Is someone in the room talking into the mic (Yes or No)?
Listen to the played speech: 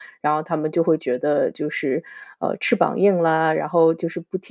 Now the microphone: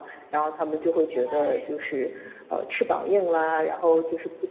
Yes